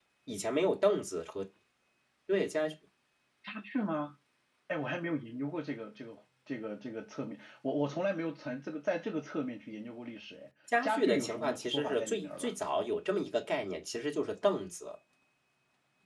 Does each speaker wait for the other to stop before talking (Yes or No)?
No